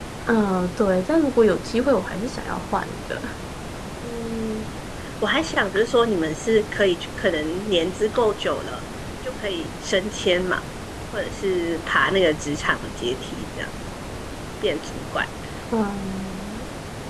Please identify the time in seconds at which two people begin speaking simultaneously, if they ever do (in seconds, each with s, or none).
none